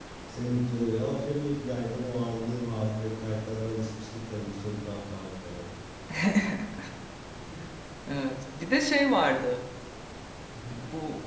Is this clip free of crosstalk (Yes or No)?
Yes